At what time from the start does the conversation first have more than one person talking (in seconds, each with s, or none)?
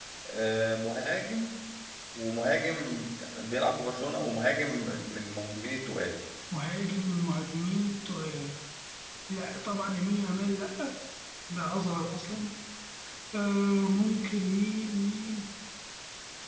none